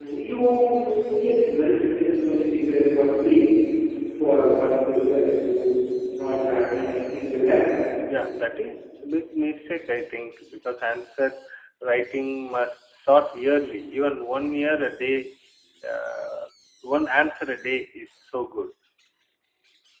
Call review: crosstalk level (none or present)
none